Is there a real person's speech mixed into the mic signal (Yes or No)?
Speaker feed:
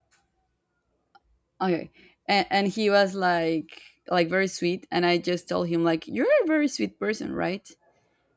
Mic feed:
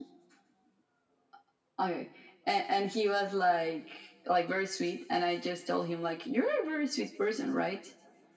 No